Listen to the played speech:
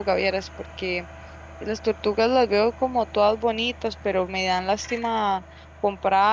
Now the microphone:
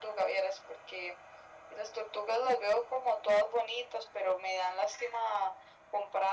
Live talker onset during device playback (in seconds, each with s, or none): none